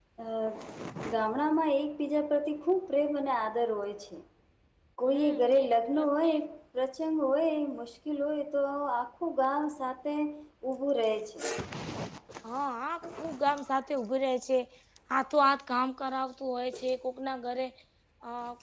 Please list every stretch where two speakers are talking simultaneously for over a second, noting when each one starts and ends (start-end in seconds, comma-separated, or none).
5.1-6.4